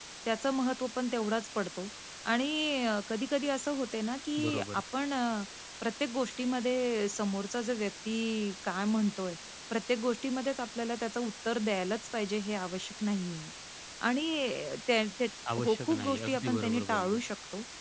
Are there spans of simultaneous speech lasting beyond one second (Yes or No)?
Yes